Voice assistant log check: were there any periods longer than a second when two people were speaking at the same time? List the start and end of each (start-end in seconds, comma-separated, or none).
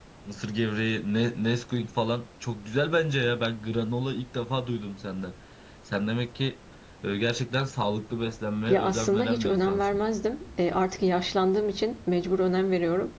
8.7-10.0